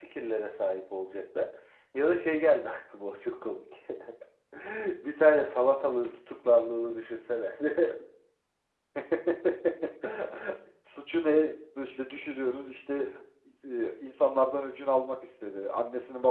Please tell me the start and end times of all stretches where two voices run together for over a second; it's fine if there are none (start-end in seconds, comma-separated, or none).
none